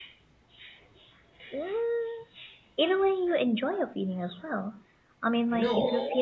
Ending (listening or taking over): listening